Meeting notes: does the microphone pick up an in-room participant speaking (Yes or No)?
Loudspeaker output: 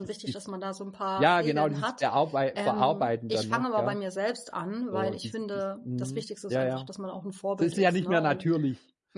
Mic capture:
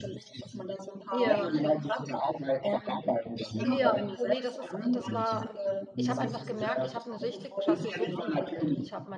Yes